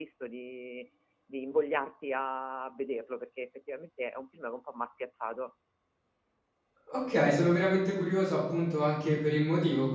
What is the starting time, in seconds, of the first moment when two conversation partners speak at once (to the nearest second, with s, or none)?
none